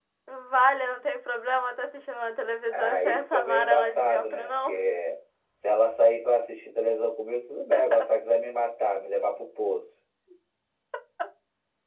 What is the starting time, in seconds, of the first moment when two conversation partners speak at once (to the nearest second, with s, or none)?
3 s